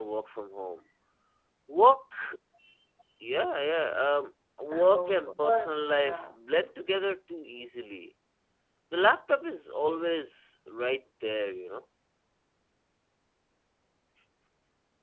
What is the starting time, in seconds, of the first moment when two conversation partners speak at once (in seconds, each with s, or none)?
4.7 s